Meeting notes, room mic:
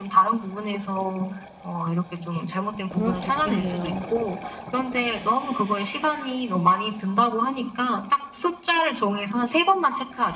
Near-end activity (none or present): present